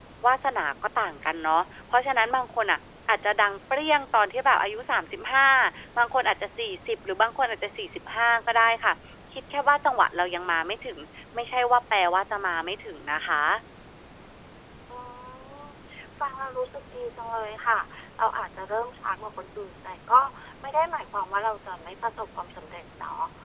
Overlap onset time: none

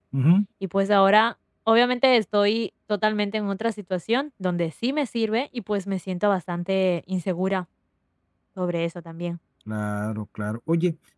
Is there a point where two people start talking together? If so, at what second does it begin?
none

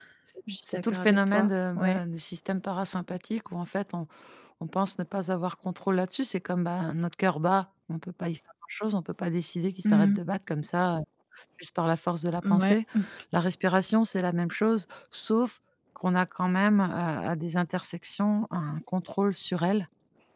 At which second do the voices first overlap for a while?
1 s

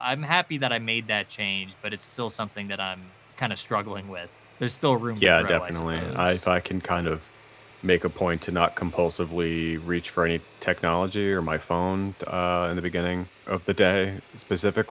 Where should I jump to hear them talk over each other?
5 s

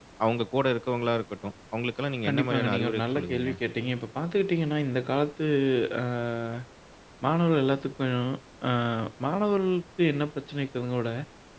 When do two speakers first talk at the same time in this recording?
2 s

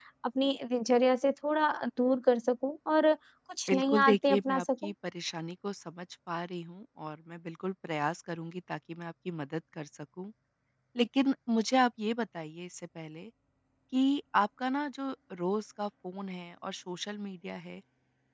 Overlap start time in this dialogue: 4 s

